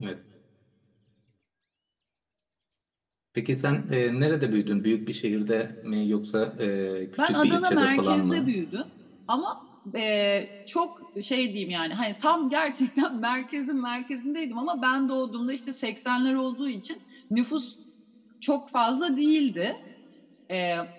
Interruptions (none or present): present